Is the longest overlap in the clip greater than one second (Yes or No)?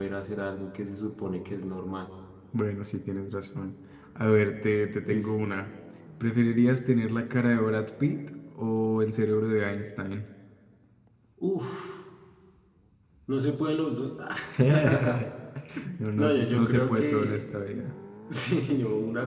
Yes